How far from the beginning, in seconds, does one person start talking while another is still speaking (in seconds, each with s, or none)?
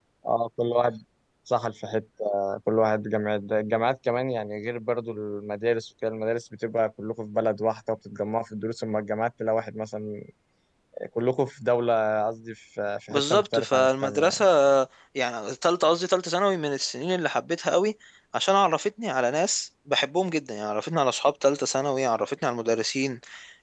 13.1 s